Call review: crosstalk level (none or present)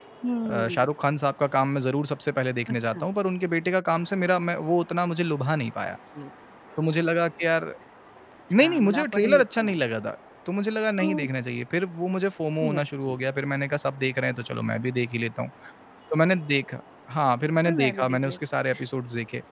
present